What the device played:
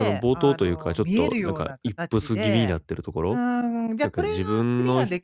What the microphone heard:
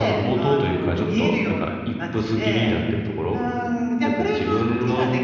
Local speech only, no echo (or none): none